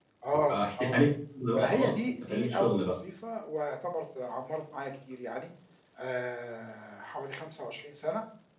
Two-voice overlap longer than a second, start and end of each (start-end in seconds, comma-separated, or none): 1.6-2.9